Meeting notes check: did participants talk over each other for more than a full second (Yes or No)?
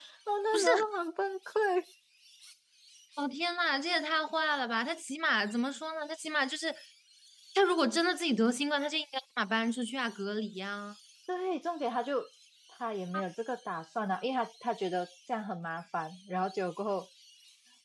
No